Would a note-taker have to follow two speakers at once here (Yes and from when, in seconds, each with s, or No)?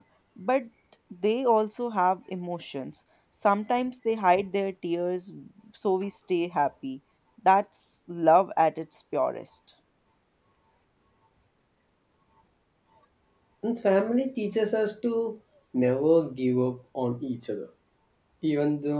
No